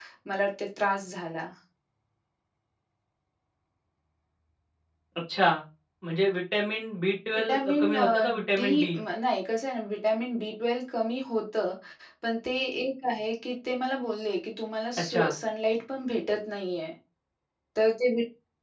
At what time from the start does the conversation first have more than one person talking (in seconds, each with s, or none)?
7.5 s